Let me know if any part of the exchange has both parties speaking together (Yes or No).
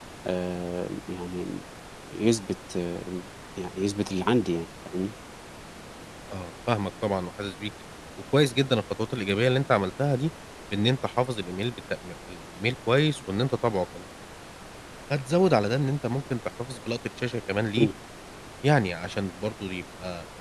No